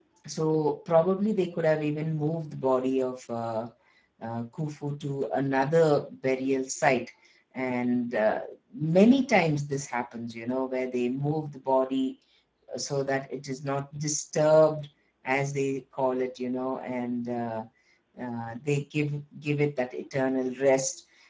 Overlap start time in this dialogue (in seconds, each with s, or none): none